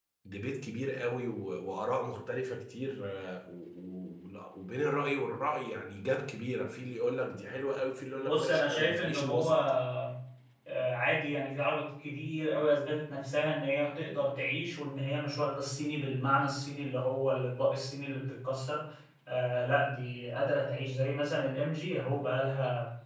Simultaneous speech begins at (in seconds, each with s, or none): 8.2 s